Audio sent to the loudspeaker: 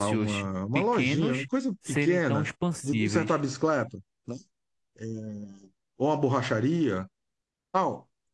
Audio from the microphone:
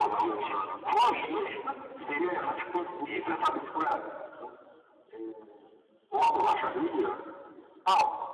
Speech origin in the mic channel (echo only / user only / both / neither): echo only